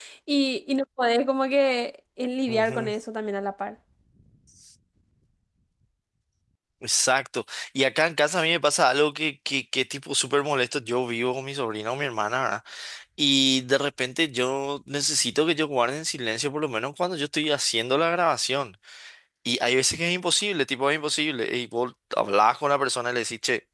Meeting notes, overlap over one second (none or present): none